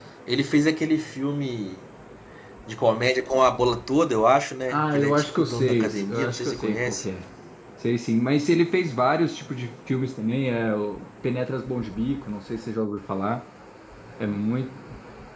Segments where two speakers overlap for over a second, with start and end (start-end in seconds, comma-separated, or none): 4.7-7.0